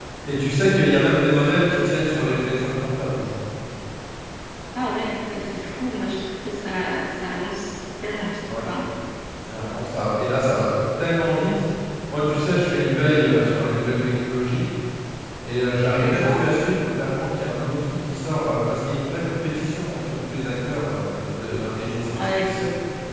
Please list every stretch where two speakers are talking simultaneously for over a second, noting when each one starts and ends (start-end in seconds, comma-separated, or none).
none